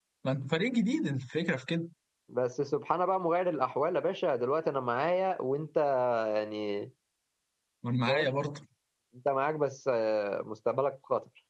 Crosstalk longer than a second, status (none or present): none